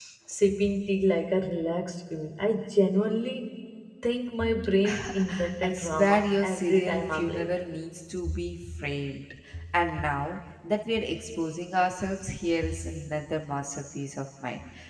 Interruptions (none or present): present